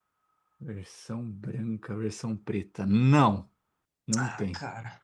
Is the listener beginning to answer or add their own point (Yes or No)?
Yes